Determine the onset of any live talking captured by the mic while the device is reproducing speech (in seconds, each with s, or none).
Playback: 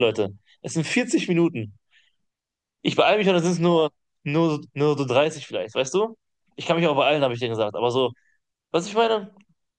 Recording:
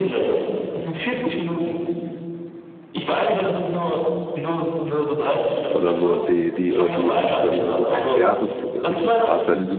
5.7 s